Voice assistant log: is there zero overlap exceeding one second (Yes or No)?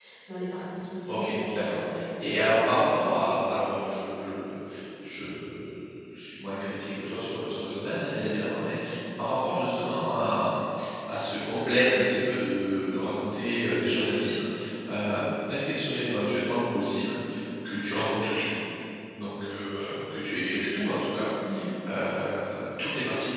No